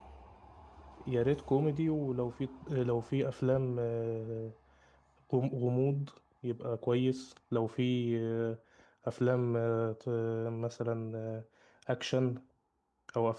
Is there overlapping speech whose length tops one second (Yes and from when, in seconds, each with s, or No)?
No